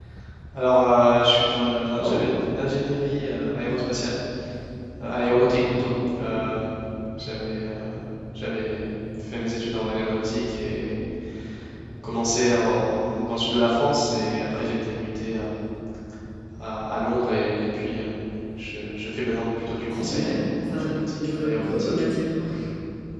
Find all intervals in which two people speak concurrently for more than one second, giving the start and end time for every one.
19.8-21.9

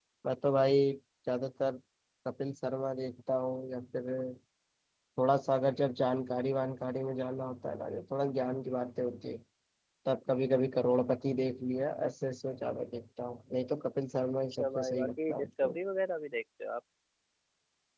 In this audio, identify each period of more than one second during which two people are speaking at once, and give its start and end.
14.5-15.8

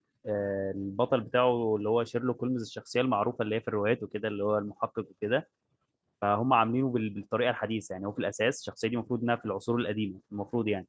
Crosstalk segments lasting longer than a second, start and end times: none

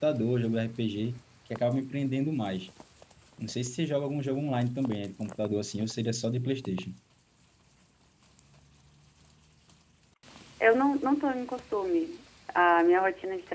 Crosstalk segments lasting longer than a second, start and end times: none

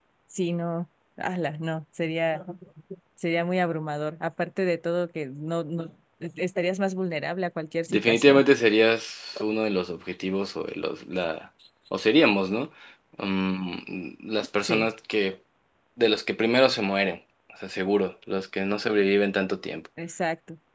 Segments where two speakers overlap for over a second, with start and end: none

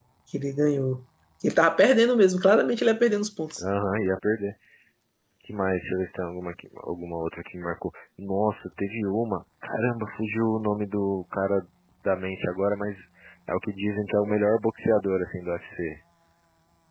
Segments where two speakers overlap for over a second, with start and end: none

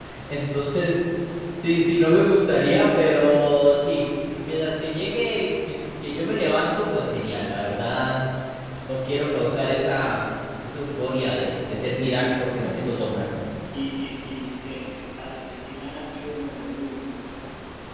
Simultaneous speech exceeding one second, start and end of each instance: none

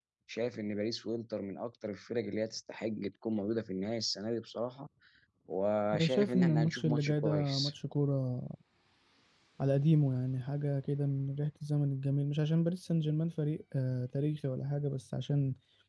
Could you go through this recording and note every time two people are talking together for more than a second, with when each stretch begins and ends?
5.9-7.7

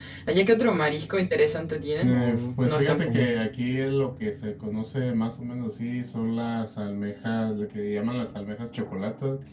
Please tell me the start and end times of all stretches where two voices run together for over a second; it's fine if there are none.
2.0-3.3

